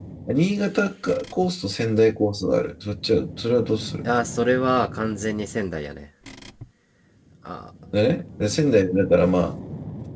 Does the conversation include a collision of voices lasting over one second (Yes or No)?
No